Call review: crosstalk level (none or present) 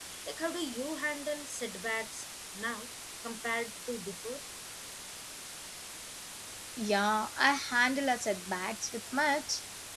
none